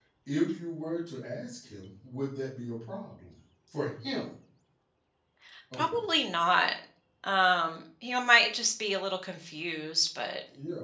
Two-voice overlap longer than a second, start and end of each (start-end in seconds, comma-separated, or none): none